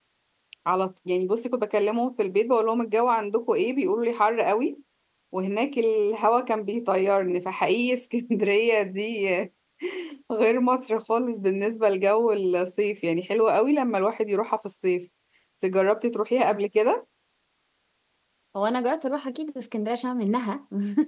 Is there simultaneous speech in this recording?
No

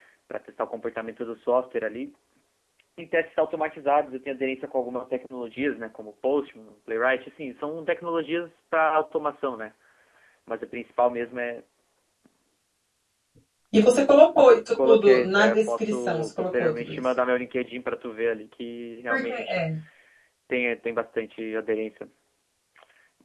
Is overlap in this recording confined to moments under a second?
No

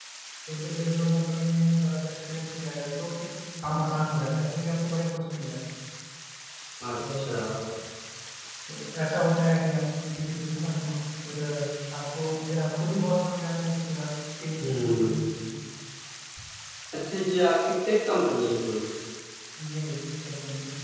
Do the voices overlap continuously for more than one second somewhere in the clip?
No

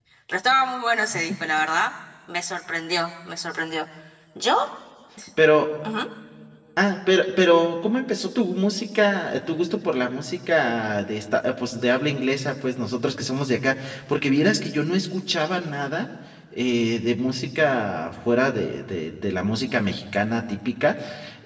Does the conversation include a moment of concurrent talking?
No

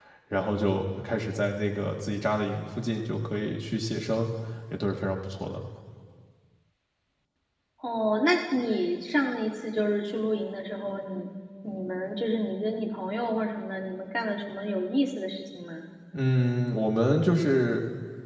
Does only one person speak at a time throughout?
Yes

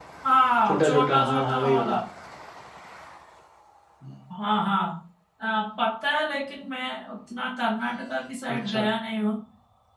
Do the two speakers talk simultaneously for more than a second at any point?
Yes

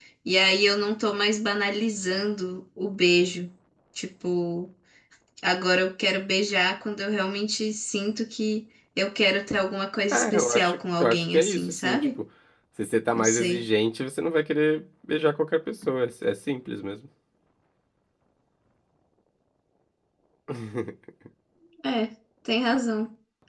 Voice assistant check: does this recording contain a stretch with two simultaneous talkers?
Yes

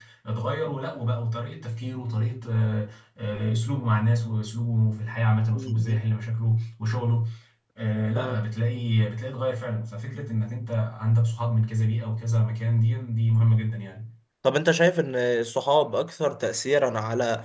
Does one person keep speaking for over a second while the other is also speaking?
No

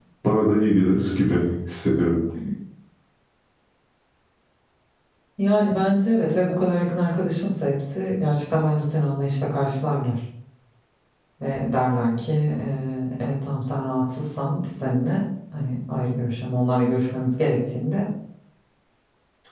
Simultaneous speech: No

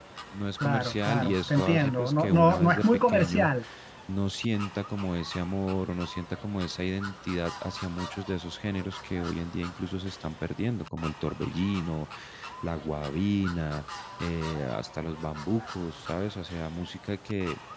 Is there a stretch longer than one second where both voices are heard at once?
Yes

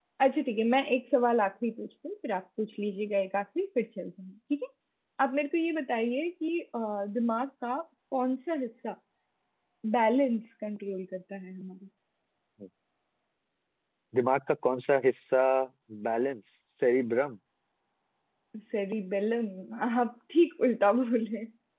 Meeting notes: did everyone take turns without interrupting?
Yes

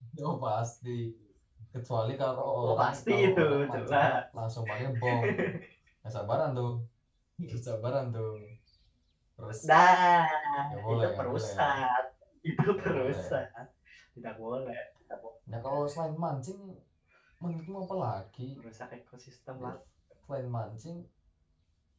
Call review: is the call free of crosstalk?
No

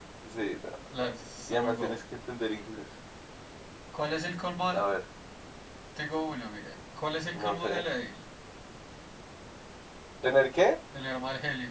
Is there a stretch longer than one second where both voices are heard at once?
No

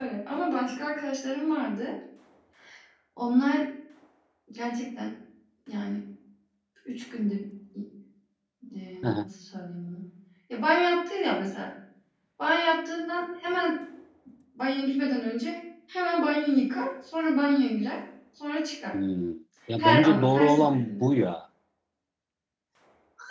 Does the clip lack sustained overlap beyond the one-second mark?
No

